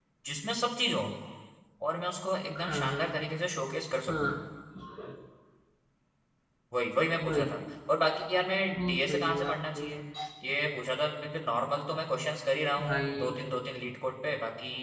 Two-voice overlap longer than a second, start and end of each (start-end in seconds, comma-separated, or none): 8.8-10.0